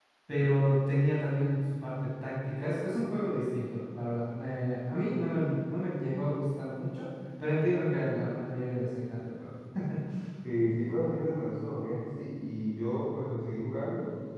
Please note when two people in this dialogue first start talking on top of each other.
none

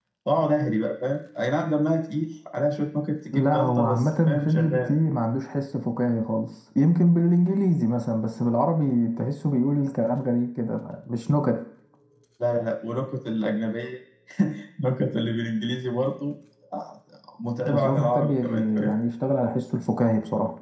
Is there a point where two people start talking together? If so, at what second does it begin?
3.3 s

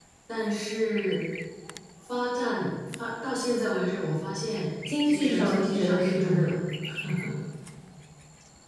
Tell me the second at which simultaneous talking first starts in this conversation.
4.9 s

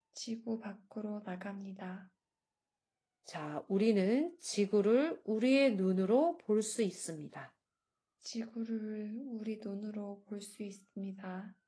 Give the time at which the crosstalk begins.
none

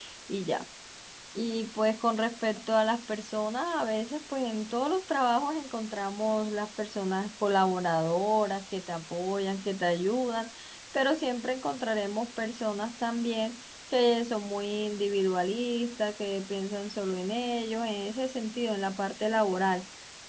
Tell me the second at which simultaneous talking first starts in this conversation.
none

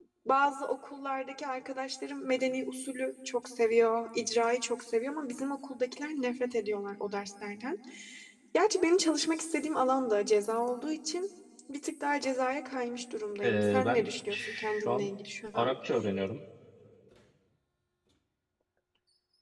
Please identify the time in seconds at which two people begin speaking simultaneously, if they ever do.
13.4 s

